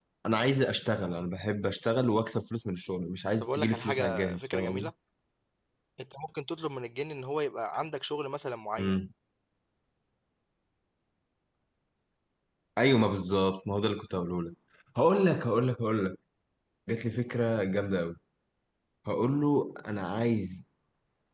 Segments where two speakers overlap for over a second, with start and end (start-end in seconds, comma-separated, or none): 3.4-4.9